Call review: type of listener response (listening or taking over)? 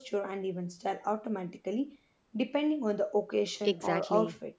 taking over